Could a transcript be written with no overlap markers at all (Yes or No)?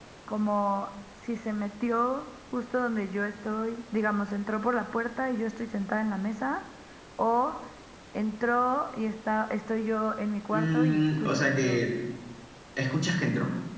No